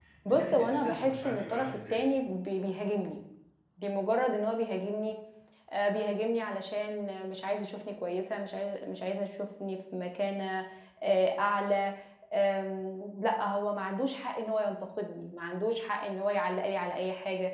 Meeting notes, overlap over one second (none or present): present